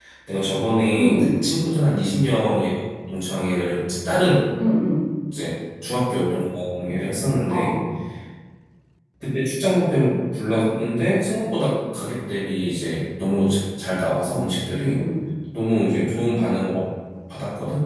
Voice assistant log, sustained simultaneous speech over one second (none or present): none